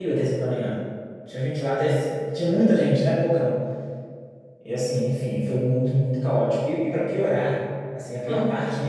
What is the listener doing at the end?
listening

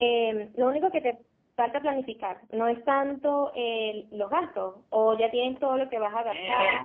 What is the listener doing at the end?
taking over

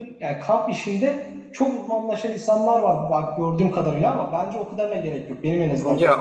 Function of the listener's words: taking over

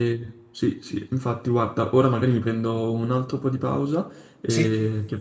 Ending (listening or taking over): listening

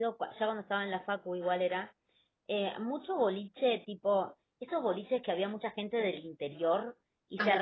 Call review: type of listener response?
listening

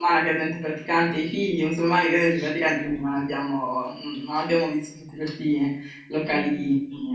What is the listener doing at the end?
listening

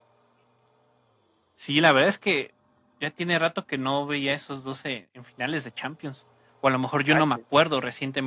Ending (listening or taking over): listening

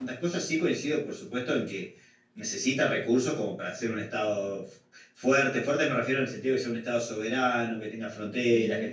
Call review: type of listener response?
listening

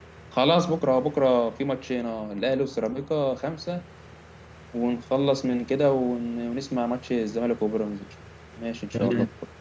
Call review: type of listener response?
taking over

